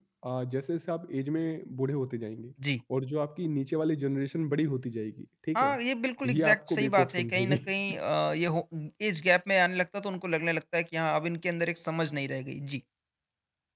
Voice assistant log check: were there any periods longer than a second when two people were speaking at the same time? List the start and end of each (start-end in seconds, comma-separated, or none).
6.2-7.6